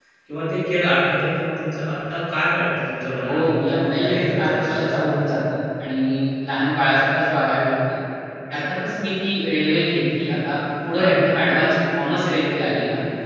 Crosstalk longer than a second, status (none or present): present